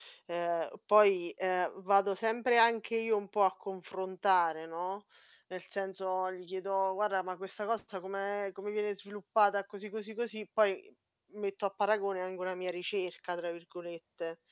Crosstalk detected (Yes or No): No